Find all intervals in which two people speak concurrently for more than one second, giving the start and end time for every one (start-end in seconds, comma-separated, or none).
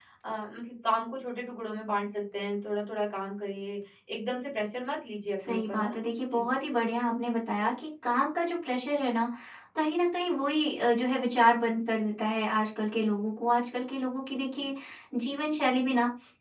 none